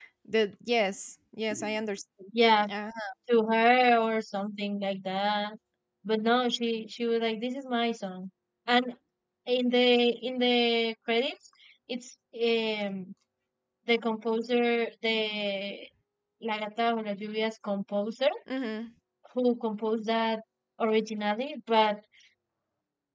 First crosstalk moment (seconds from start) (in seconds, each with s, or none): none